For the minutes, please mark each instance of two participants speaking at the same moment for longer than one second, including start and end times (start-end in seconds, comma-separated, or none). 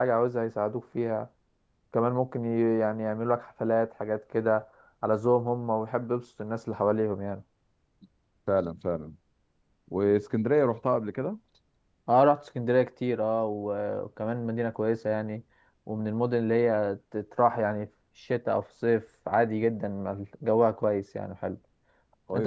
none